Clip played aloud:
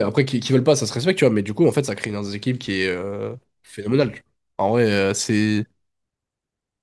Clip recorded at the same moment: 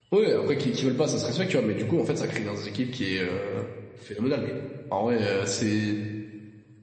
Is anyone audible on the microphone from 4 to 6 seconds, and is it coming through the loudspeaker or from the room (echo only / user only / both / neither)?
echo only